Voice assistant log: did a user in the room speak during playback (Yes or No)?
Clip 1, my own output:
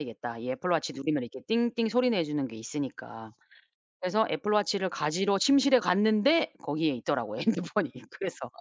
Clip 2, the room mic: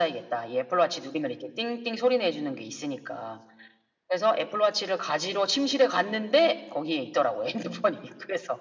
No